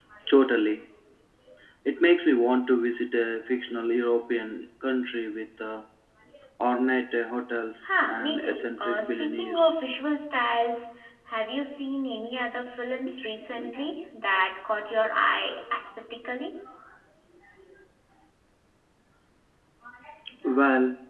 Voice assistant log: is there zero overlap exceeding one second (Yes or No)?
No